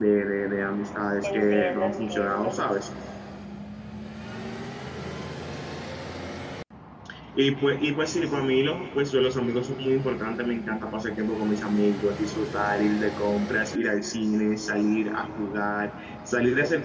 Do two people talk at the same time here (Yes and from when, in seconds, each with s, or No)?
Yes, from 1.2 s